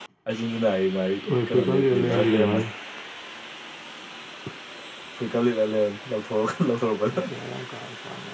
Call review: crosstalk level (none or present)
present